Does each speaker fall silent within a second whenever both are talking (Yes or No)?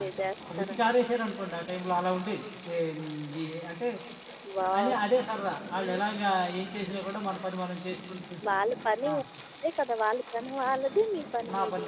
Yes